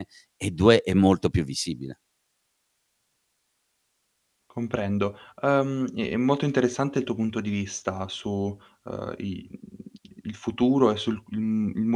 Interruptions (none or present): none